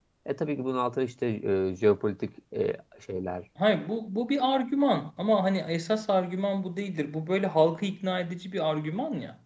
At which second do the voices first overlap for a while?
none

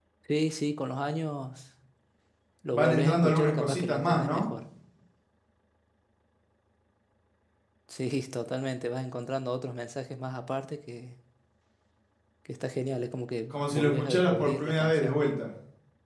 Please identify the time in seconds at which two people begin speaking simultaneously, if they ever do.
3 s

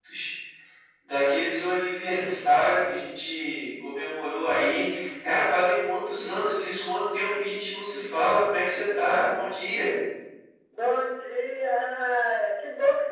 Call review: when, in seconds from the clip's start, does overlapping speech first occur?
none

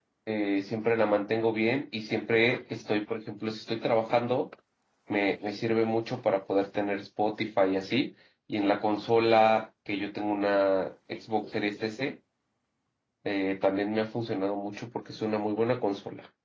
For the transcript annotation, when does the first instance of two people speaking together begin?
none

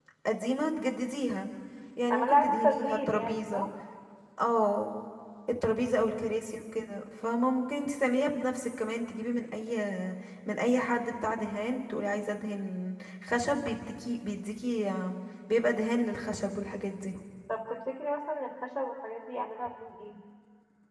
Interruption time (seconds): 2 s

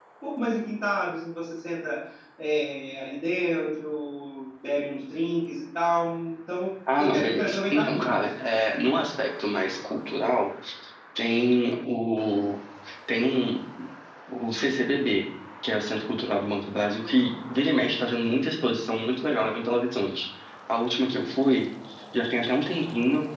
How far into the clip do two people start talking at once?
7 s

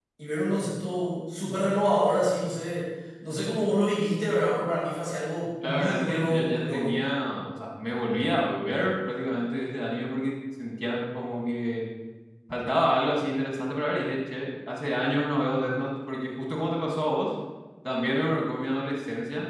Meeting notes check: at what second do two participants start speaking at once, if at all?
6 s

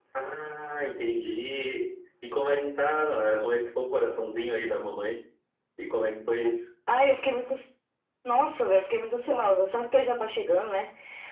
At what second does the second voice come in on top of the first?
none

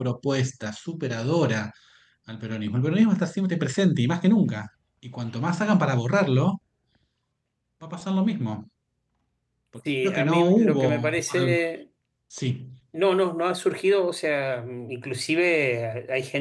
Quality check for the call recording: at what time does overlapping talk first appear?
10 s

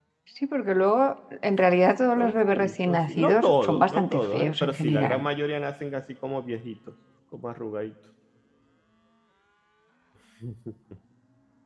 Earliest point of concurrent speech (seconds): 2 s

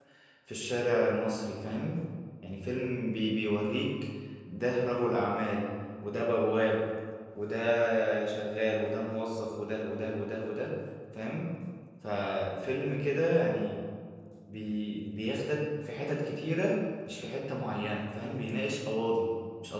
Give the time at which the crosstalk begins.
none

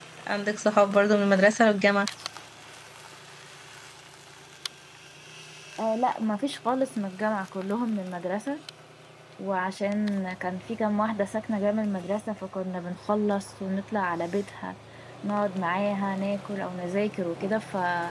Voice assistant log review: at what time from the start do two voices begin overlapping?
none

